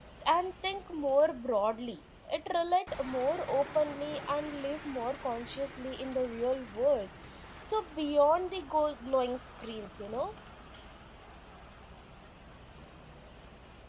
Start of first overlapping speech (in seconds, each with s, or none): none